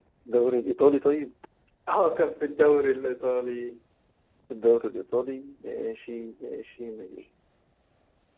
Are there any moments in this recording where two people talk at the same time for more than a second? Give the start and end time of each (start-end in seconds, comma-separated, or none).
none